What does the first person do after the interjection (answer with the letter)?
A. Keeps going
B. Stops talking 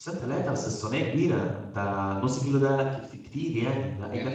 B